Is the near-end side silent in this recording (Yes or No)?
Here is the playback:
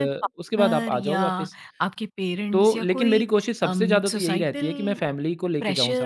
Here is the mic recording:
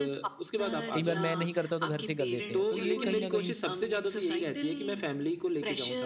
No